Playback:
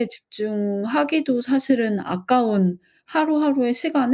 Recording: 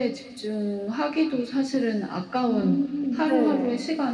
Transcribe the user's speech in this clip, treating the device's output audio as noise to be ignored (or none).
음 네.